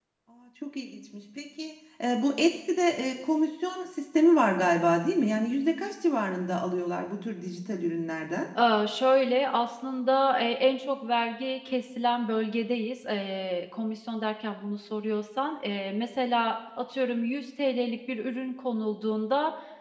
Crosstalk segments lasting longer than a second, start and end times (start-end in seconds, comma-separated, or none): none